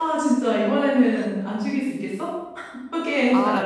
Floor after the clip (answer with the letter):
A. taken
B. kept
A